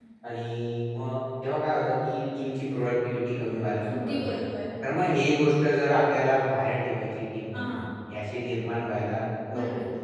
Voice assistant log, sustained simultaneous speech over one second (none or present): none